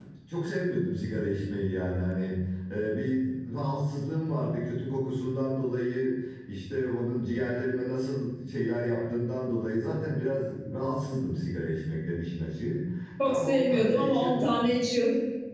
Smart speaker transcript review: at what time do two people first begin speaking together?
13.2 s

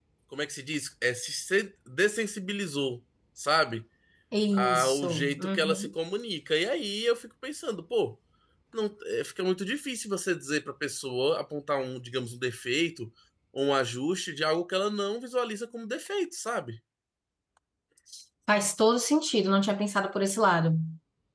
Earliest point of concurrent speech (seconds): 4.5 s

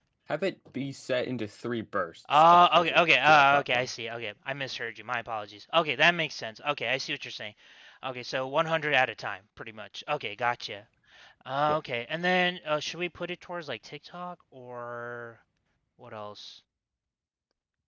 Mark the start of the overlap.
2.2 s

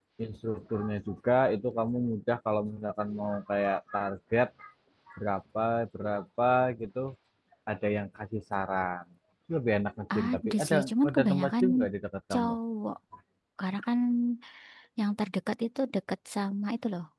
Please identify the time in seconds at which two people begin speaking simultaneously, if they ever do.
10.2 s

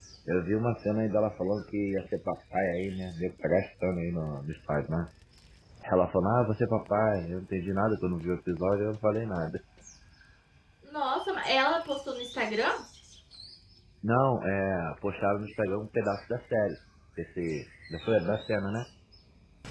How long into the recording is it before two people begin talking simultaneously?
none

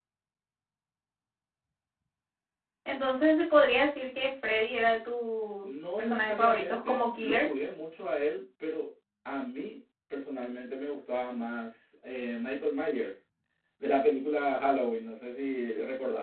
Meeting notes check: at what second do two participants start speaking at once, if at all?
5.6 s

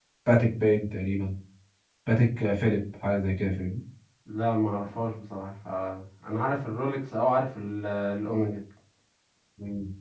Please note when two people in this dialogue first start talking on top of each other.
none

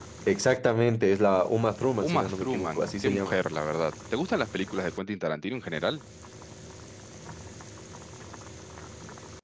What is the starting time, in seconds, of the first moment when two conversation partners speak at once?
2.0 s

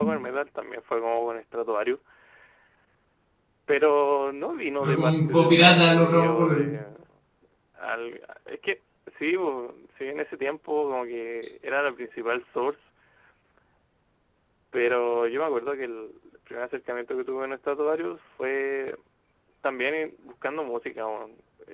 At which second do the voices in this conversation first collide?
4.8 s

